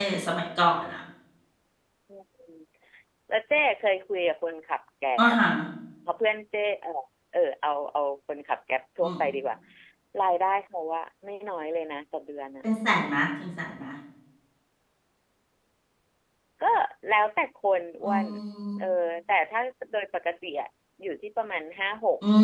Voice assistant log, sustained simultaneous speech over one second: none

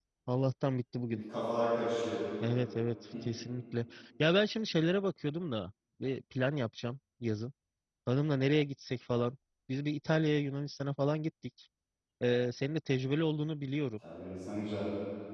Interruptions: none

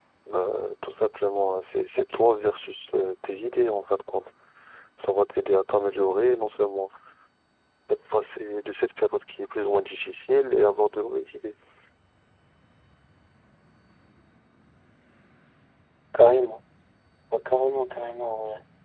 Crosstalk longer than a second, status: none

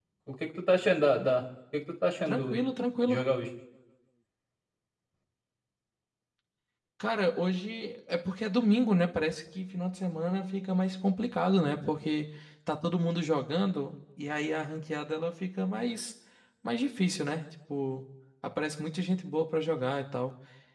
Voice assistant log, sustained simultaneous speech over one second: none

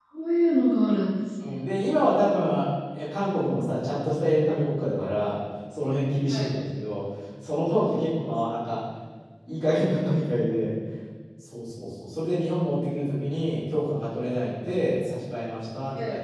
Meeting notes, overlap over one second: none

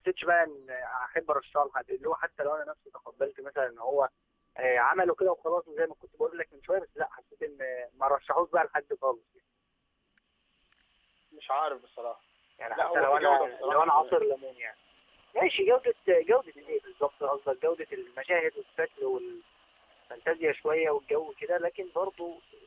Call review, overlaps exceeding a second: present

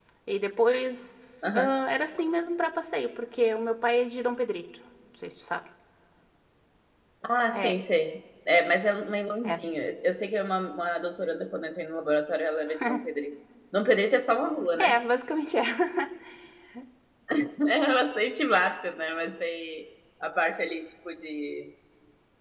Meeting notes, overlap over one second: none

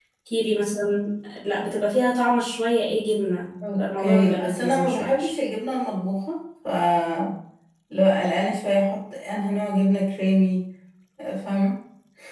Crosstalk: present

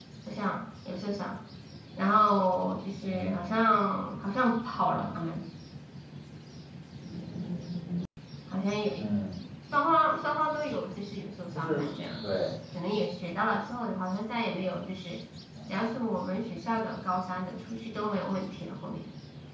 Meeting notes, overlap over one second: none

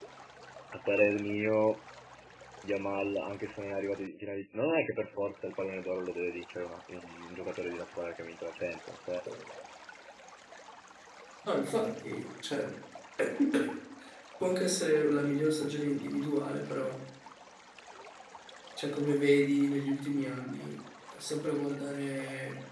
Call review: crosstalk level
none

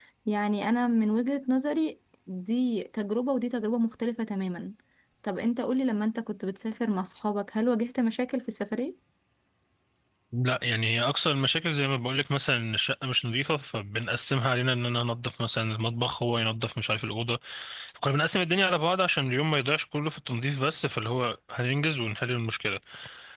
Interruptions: none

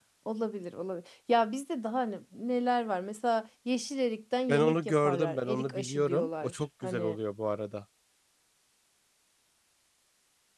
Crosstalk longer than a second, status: present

